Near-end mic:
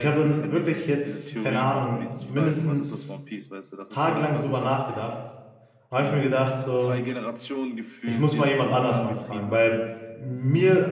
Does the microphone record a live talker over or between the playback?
Yes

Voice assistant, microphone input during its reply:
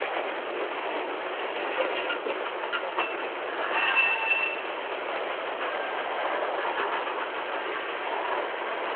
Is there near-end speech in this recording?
No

